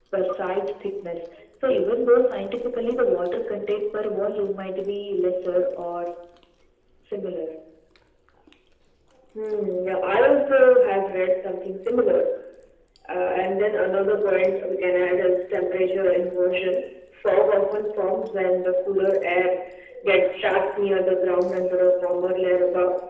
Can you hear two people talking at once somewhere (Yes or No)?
No